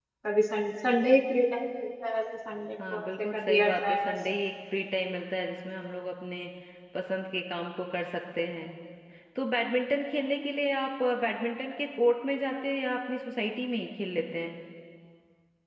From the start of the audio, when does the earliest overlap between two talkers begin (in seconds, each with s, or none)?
2.8 s